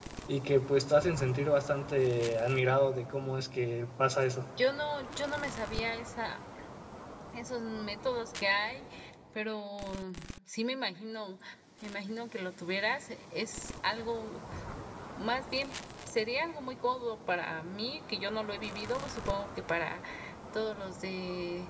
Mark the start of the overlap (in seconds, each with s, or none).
none